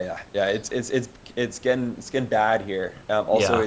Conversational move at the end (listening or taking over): listening